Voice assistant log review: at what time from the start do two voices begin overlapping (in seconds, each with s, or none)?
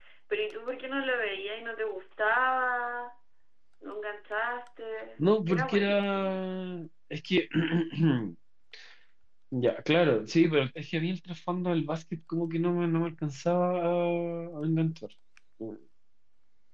5.2 s